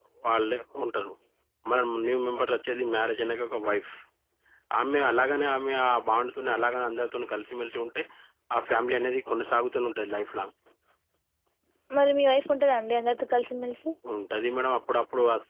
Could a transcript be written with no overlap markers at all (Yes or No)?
Yes